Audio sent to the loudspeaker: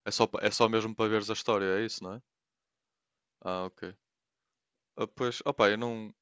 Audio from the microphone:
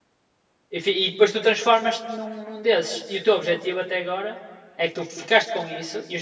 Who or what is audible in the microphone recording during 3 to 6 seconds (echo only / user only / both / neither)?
user only